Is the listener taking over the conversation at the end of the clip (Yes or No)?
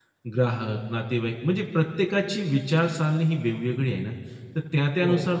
No